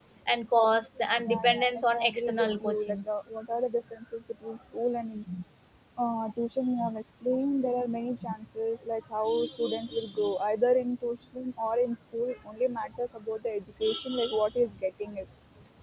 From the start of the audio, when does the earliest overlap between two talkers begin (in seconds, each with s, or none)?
1.3 s